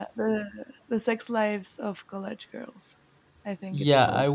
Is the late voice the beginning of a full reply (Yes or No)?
Yes